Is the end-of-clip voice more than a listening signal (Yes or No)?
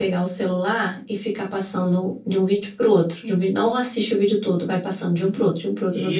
Yes